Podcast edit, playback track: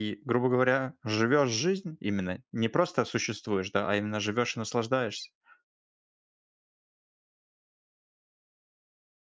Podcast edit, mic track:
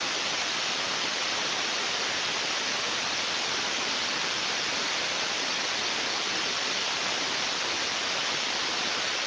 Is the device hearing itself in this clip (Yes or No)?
No